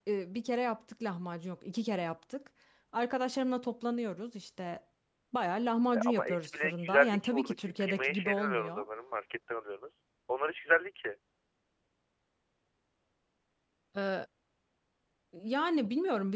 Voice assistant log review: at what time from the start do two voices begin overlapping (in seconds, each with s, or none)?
6.0 s